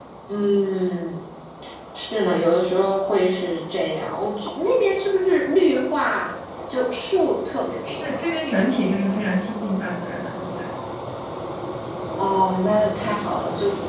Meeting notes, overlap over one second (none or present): none